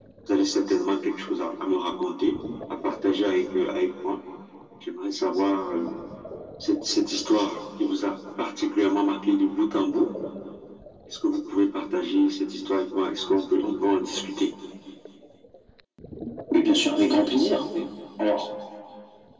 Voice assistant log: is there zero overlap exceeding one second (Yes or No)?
Yes